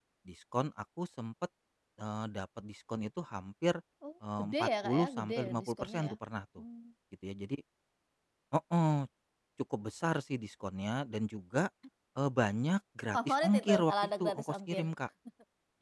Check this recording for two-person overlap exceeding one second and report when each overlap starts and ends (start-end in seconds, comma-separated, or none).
4.4-6.2, 13.1-14.8